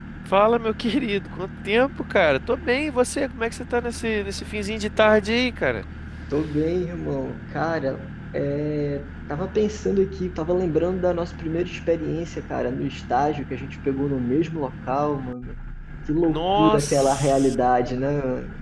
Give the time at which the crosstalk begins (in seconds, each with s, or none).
16.3 s